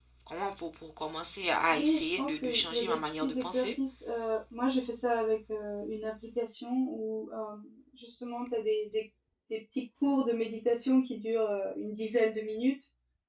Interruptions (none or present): present